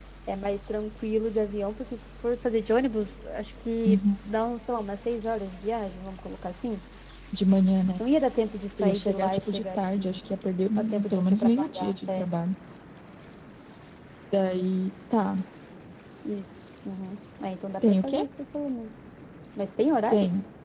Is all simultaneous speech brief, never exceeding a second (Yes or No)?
No